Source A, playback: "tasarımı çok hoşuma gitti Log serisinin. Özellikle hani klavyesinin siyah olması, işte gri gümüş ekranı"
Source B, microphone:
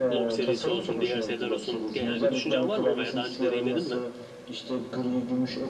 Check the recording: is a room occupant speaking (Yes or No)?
Yes